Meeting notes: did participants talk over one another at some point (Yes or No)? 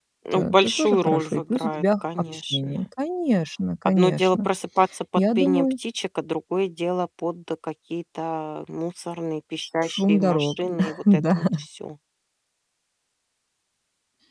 Yes